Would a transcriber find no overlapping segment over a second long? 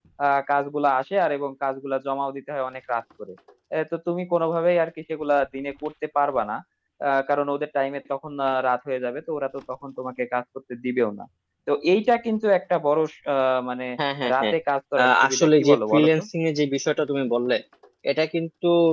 No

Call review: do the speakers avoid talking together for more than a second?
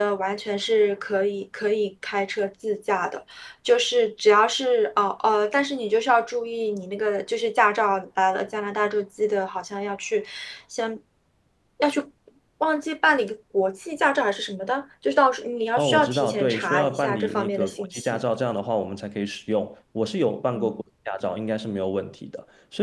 No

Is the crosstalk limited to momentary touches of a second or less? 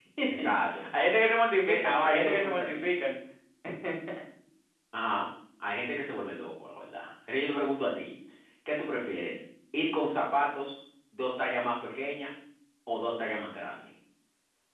No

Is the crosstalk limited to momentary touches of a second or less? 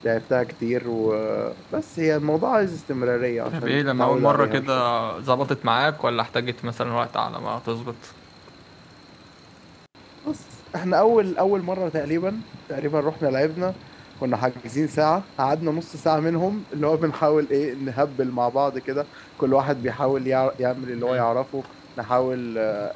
No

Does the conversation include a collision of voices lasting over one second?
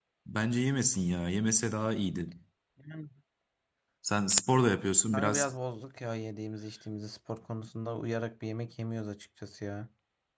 No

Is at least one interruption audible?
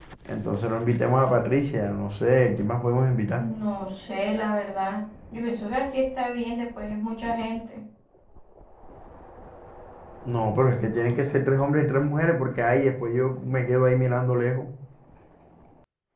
No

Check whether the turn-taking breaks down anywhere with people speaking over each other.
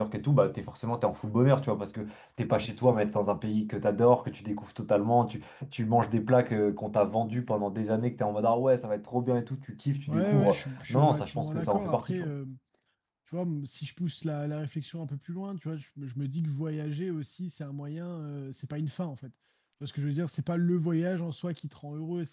Yes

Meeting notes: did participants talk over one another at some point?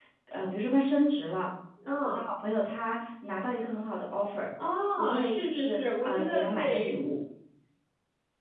Yes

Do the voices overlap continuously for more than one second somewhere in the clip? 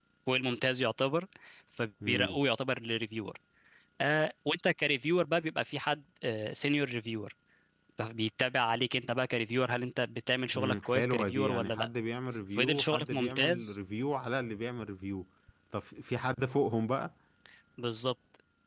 Yes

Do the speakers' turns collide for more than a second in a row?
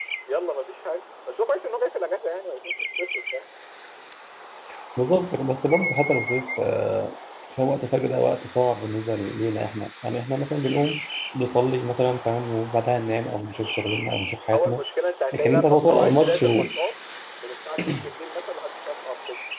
Yes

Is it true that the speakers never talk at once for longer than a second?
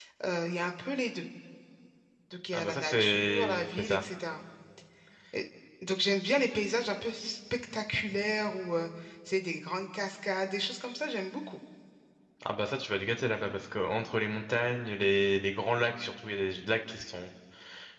No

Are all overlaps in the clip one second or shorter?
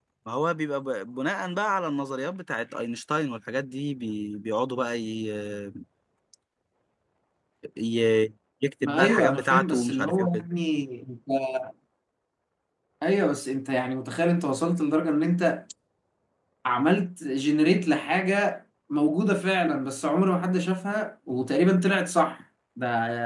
No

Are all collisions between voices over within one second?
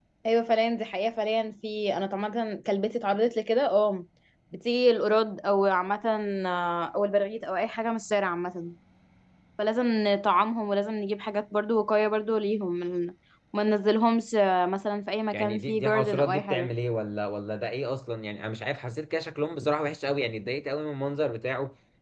No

